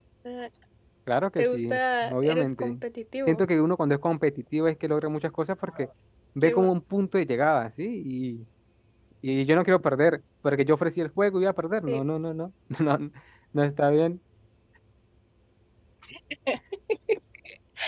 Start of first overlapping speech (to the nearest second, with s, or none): 1 s